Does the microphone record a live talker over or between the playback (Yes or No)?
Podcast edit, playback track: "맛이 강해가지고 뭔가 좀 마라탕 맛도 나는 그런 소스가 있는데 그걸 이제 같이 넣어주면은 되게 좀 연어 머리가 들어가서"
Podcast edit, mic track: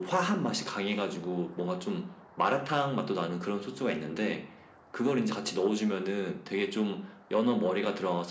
No